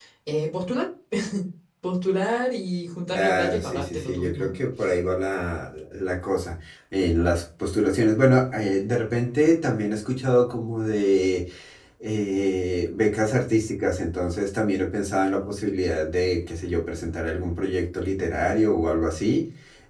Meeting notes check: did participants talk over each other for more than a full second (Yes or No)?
Yes